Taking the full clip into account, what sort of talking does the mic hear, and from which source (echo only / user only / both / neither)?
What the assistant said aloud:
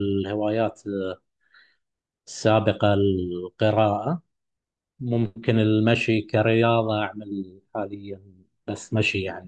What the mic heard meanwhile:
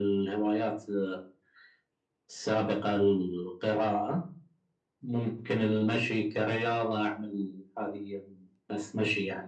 echo only